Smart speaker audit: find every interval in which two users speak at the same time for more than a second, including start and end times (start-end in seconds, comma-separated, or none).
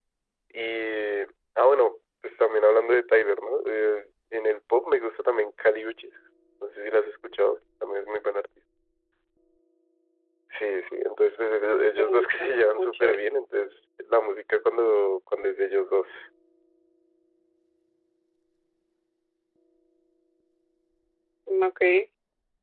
12.0-13.2